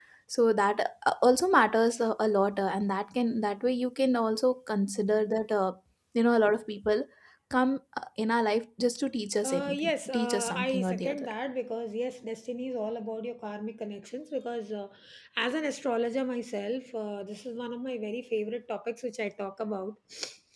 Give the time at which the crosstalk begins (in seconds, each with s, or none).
9.4 s